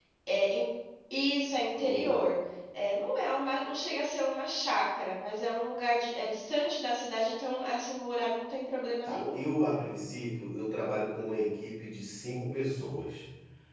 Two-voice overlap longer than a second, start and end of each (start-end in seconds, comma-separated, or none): none